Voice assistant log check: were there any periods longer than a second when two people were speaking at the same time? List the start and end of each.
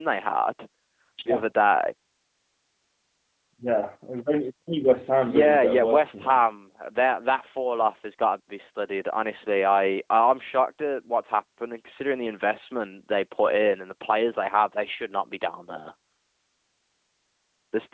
5.2-6.5

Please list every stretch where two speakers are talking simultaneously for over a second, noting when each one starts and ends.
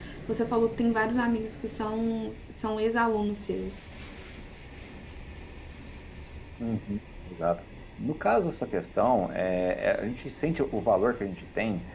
none

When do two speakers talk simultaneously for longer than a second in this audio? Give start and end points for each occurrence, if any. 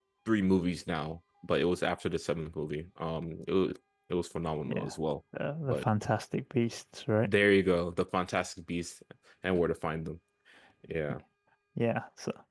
none

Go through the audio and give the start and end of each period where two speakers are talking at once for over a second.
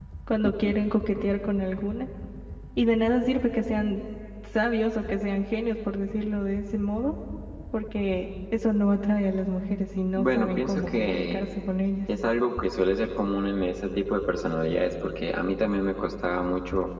10.1-11.4

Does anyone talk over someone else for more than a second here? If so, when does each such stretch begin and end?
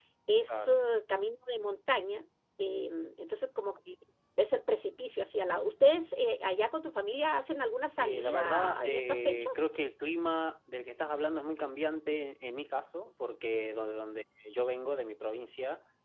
8.0-9.6

